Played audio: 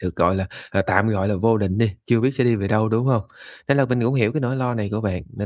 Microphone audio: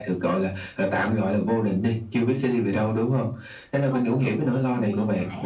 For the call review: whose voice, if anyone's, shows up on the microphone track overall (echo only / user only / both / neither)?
both